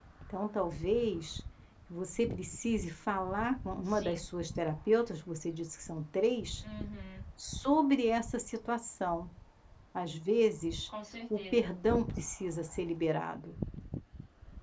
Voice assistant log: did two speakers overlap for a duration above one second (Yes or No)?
No